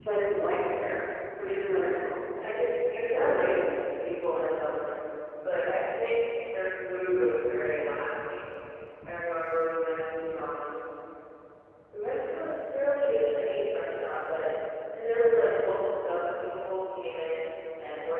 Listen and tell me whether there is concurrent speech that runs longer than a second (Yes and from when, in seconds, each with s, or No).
No